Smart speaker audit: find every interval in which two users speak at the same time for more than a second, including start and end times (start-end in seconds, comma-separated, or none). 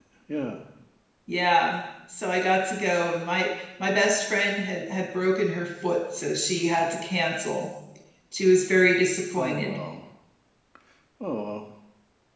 none